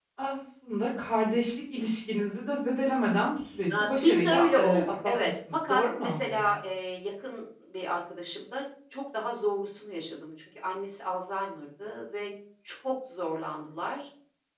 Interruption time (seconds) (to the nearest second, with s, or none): 4 s